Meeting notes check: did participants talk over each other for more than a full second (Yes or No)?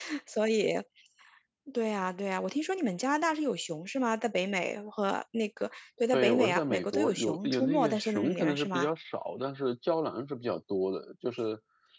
Yes